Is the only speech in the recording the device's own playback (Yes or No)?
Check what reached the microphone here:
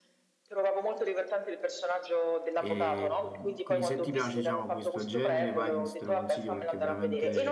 No